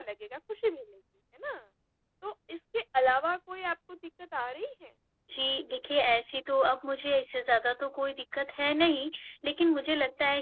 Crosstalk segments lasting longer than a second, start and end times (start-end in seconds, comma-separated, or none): none